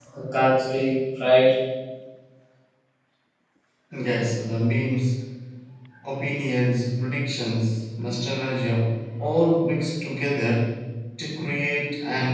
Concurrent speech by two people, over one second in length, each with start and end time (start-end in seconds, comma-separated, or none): none